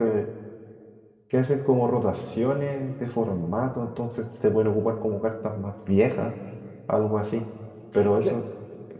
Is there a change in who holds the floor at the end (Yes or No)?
No